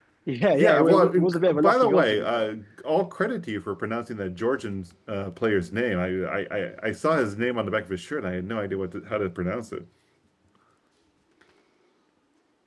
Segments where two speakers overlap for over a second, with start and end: 0.5-2.5

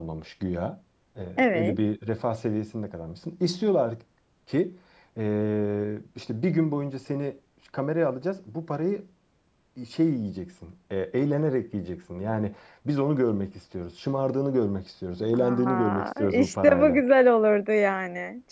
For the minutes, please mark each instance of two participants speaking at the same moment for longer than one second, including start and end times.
15.3-17.0

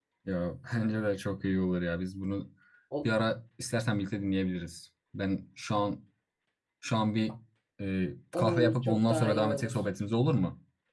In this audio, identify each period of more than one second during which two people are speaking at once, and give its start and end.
8.3-9.8

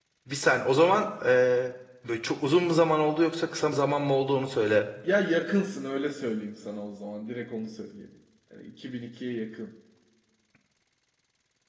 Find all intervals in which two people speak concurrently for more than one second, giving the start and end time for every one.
none

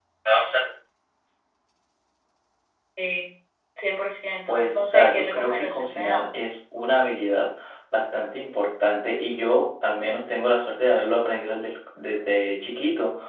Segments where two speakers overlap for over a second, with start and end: 4.5-6.4

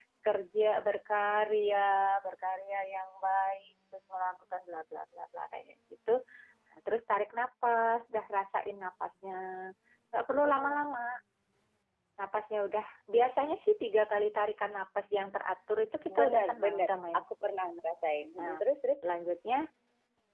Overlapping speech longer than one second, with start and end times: 16.2-17.5

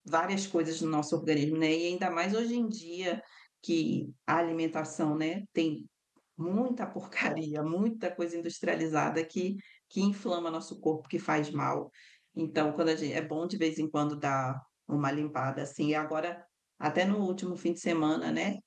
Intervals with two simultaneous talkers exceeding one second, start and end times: none

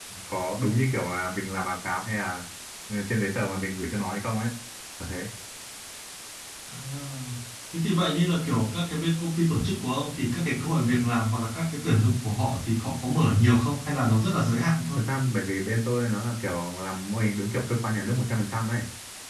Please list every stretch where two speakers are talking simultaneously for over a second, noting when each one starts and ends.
none

